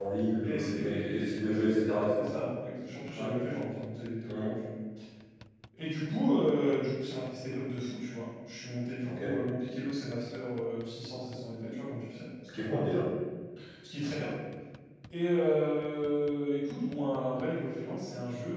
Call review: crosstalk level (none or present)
present